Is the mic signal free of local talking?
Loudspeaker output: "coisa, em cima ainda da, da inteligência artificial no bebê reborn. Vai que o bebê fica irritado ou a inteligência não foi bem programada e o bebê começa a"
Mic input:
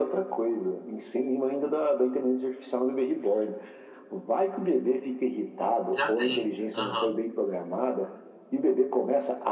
No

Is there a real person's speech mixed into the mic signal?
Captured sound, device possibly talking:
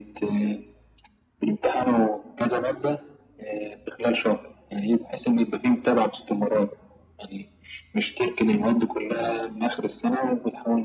No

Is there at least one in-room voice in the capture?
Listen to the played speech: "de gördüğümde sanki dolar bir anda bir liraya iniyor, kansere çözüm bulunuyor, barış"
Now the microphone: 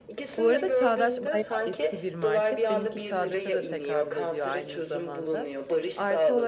Yes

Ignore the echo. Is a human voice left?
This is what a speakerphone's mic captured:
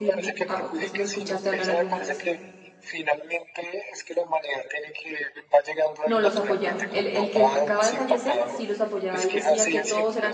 Yes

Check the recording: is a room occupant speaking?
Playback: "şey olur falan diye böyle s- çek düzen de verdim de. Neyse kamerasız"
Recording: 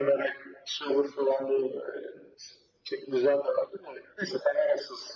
No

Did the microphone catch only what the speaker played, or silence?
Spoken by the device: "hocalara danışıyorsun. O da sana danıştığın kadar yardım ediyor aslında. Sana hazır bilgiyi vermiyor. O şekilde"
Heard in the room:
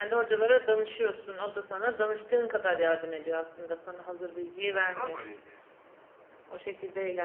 No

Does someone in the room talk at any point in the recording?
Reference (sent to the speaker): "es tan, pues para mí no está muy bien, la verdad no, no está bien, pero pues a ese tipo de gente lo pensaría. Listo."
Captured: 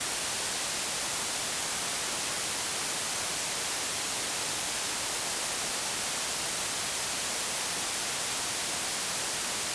No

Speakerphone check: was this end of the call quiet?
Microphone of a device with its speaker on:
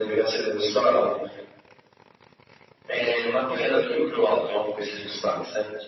Yes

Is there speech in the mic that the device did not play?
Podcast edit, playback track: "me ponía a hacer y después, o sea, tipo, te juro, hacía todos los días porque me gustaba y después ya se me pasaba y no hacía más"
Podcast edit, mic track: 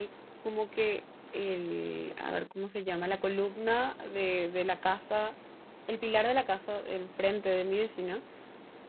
Yes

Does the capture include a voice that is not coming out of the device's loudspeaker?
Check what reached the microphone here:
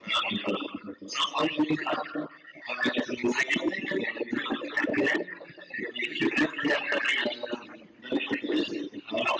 No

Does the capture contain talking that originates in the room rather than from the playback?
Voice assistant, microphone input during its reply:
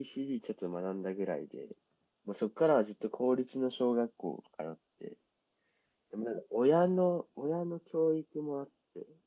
Yes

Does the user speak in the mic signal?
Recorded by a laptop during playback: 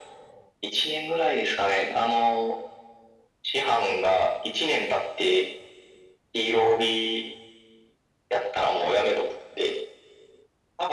No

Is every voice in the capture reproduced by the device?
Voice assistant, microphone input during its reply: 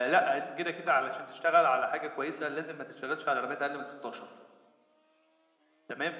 Yes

